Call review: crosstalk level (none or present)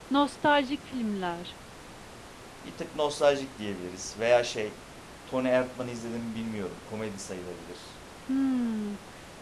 none